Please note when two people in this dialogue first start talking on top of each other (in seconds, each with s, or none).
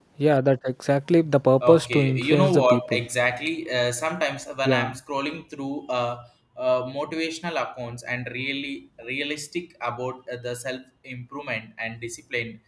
1.7 s